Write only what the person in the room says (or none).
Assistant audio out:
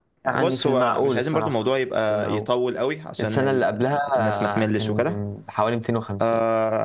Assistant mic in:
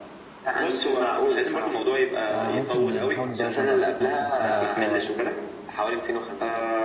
اه ممكن نحاول ندور برضه على سبونسرز بقى بتوع